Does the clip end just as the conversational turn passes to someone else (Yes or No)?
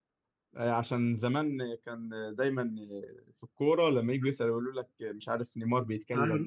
No